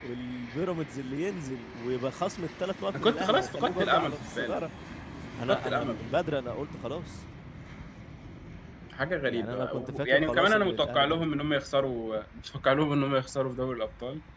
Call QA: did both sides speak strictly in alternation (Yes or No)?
No